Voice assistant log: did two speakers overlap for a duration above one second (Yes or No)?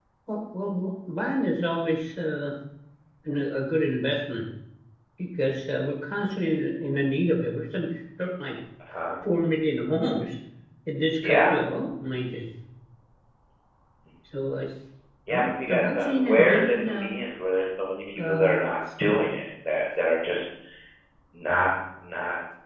Yes